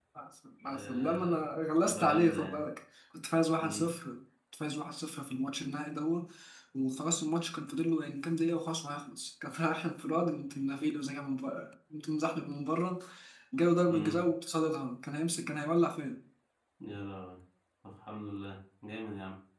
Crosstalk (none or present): present